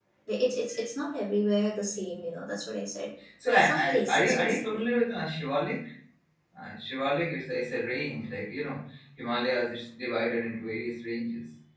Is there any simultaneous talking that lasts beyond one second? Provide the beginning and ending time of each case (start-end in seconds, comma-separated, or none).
3.6-4.9